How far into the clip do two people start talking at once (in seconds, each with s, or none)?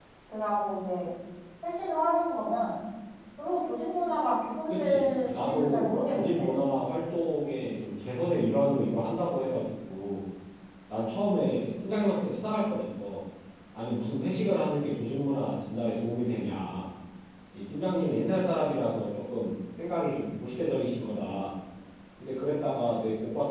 4.7 s